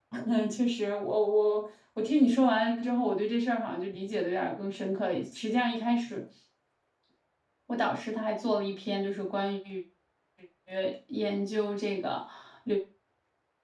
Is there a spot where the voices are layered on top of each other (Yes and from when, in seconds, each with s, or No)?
No